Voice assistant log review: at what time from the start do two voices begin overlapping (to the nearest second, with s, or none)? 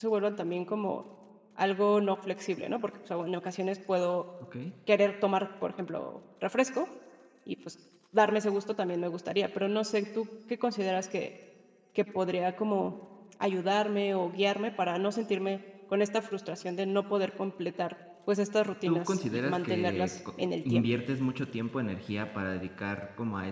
19 s